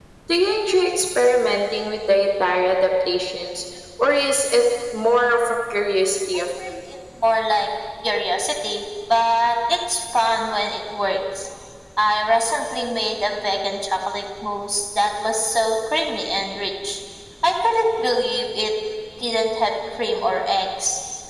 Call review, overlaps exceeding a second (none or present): none